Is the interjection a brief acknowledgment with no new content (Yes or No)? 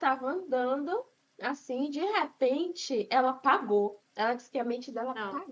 Yes